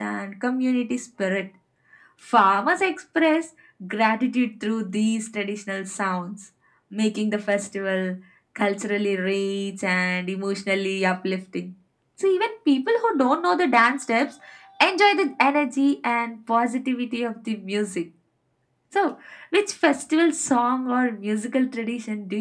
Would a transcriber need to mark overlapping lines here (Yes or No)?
No